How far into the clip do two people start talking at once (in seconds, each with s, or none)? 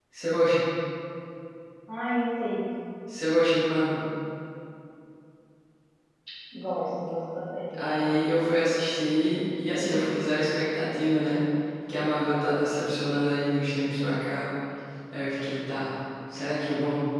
none